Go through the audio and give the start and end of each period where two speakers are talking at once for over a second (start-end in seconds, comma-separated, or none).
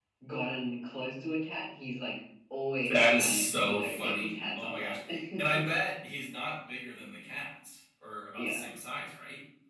3.1-5.0